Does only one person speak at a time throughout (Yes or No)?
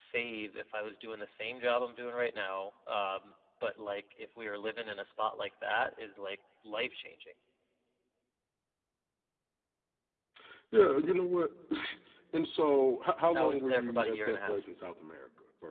No